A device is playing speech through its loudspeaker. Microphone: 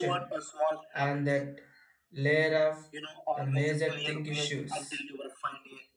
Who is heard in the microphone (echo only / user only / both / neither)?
both